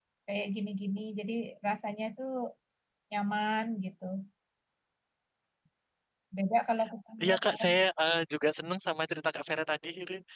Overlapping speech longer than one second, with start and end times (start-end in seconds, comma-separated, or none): none